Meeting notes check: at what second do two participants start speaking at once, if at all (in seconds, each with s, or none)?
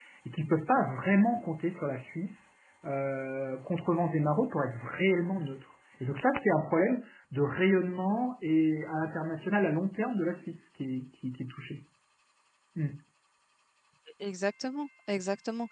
none